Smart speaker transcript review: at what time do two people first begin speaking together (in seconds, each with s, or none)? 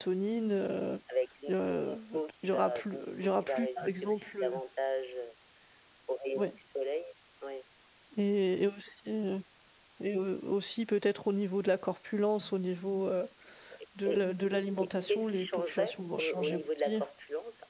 1.5 s